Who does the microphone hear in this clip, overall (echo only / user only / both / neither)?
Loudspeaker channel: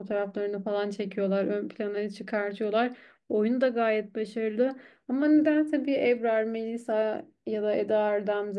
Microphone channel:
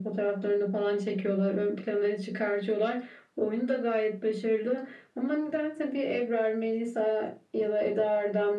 echo only